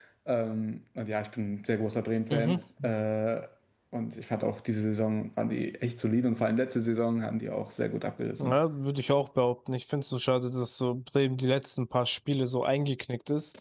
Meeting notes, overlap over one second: none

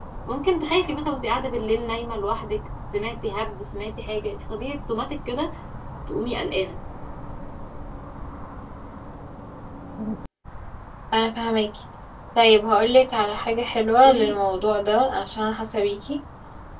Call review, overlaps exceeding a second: none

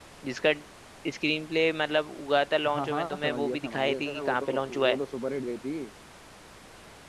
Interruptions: present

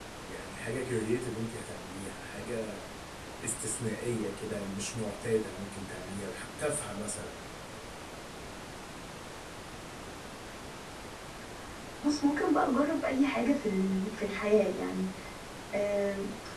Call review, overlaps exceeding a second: none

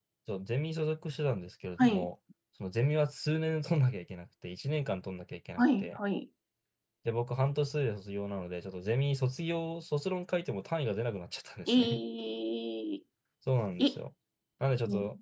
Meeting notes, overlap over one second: none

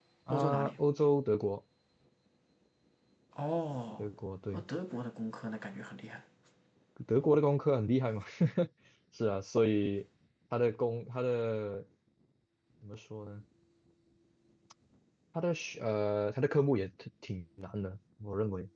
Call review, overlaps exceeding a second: none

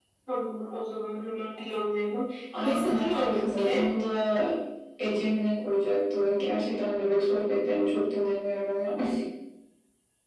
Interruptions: present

